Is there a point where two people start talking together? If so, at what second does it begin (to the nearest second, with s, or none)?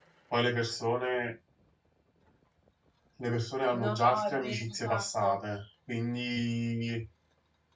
4 s